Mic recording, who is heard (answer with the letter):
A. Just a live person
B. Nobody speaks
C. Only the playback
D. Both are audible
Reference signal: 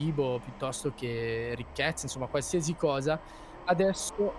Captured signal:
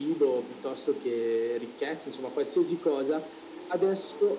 C